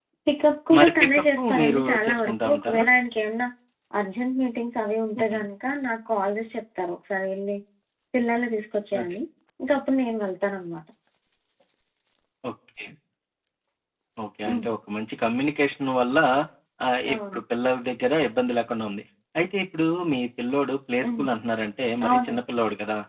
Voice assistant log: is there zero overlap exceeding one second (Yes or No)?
No